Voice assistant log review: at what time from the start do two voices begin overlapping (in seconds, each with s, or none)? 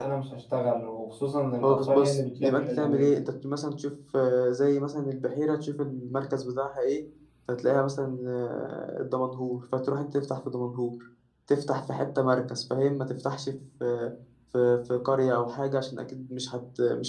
1.6 s